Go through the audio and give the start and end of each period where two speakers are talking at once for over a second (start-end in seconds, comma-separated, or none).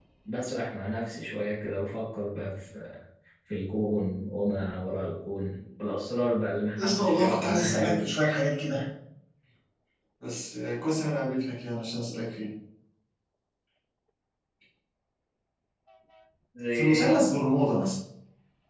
6.8-8.1